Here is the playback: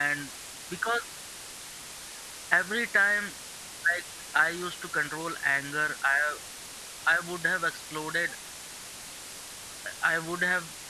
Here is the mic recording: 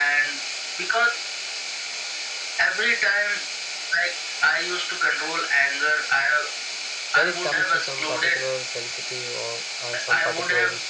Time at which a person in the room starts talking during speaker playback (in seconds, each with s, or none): 7.1 s